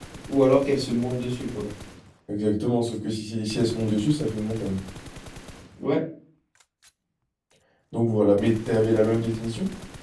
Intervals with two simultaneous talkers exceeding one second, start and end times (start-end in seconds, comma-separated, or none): none